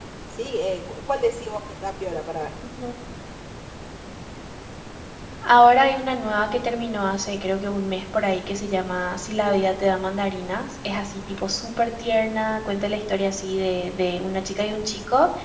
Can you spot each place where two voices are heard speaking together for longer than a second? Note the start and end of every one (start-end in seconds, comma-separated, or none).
none